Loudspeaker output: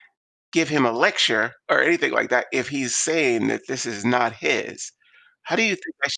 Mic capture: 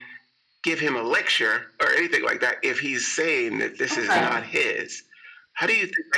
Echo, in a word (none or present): present